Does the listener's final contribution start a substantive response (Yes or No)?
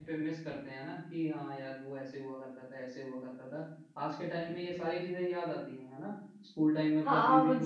Yes